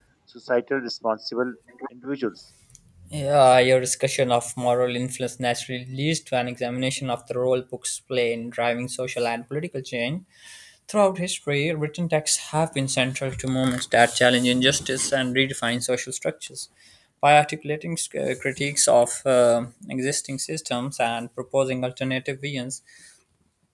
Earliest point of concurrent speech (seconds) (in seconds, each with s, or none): none